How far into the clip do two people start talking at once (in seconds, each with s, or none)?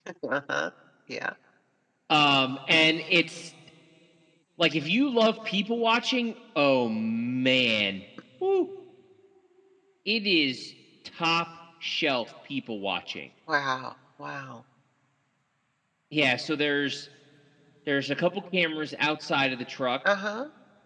none